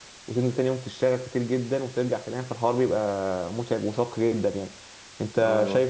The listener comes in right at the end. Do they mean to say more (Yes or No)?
No